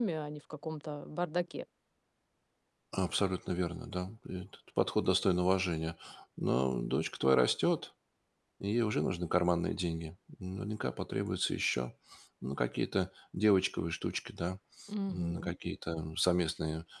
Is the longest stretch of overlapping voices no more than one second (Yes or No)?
Yes